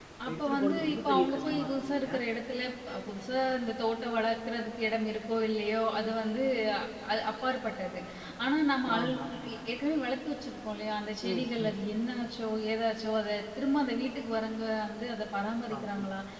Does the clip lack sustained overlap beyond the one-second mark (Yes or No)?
No